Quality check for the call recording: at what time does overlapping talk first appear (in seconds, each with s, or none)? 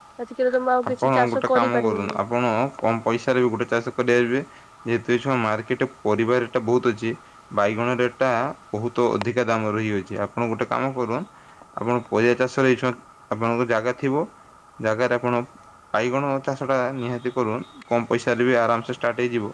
0.9 s